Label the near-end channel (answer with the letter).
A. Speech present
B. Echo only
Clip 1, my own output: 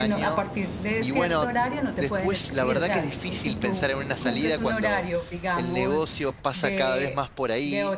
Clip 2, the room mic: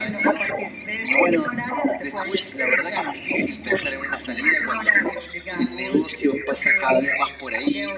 B